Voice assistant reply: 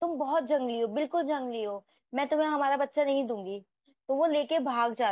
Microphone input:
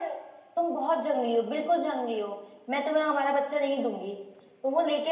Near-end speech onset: none

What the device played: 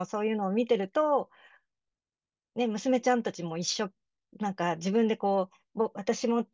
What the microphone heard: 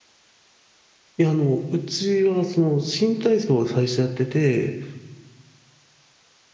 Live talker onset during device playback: 1.1 s

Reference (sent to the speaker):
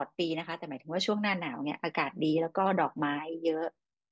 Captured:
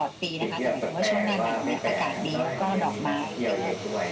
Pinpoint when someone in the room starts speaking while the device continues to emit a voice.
0.4 s

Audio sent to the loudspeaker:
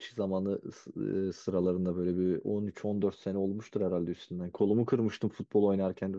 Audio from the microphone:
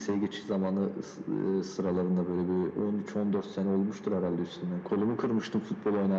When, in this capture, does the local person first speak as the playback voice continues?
none

